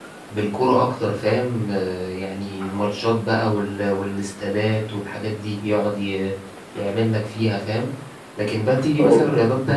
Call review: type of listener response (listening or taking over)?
listening